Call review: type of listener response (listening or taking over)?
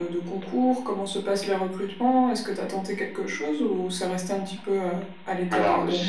taking over